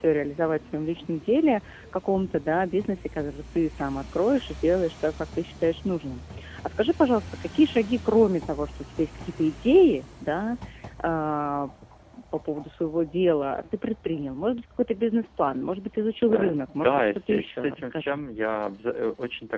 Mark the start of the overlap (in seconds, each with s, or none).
16.3 s